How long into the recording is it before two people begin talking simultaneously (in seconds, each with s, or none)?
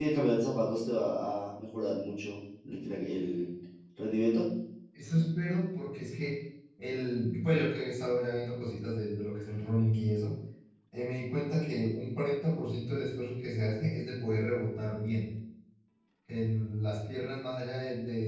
none